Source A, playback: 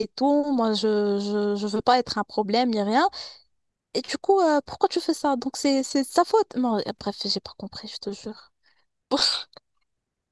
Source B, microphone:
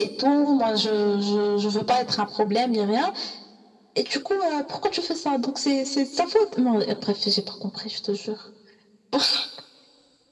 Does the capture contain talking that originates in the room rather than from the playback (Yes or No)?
No